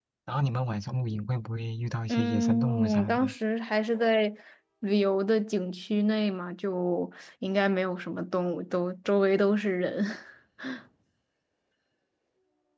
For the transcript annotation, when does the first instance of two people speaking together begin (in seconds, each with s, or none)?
2.1 s